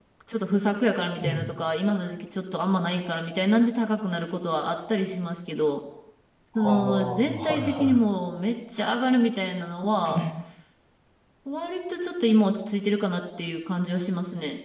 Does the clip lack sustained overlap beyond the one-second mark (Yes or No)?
No